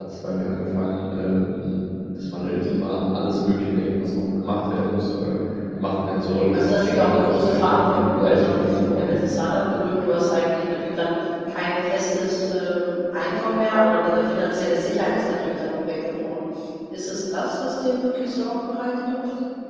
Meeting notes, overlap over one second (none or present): present